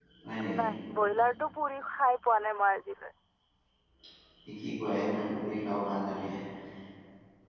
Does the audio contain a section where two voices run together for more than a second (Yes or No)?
No